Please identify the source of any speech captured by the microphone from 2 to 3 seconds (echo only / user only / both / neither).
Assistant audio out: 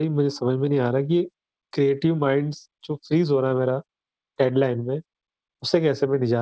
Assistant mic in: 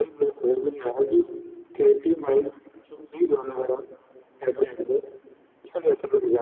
echo only